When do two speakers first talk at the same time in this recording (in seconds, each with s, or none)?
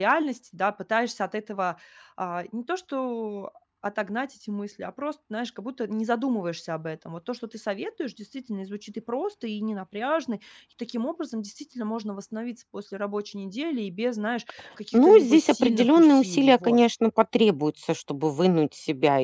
14.9 s